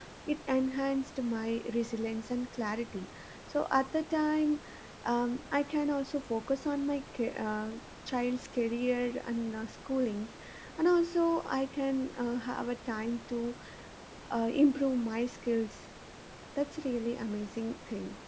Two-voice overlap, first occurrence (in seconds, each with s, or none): none